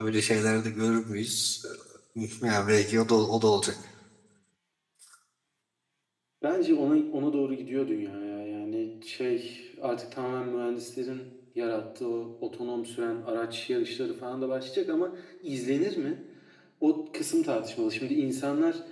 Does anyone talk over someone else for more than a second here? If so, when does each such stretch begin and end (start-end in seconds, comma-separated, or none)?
none